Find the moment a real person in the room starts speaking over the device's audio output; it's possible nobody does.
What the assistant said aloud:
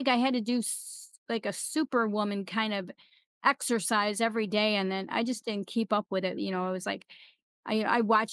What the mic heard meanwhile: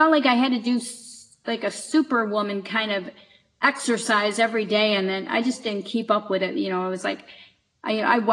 none

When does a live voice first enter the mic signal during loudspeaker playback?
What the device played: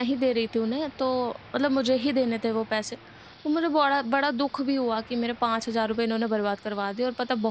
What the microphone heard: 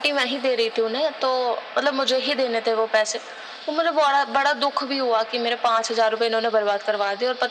none

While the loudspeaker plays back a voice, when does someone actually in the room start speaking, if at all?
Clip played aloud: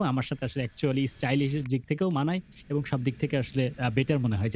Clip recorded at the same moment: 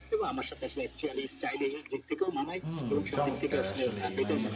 2.6 s

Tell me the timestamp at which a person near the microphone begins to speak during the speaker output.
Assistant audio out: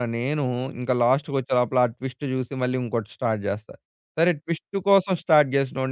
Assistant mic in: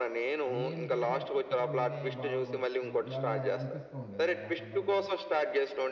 0.5 s

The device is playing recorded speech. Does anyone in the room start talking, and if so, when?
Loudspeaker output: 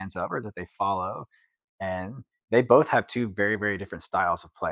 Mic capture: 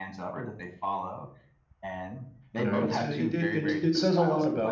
2.6 s

